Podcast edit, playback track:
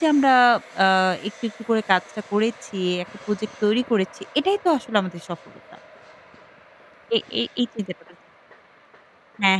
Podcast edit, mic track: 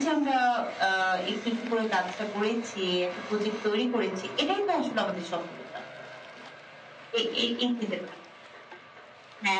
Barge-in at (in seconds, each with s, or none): none